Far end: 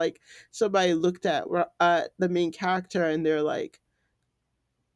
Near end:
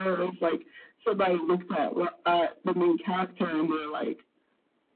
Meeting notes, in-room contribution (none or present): none